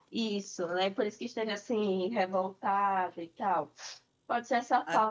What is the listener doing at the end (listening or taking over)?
listening